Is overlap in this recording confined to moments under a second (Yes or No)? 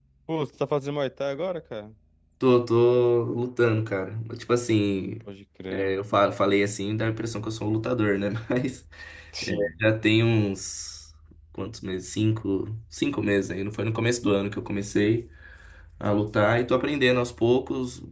Yes